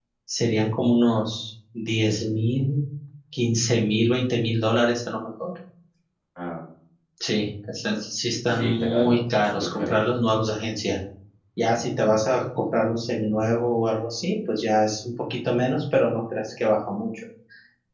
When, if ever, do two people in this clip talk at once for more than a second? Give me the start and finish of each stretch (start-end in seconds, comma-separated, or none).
8.5-10.0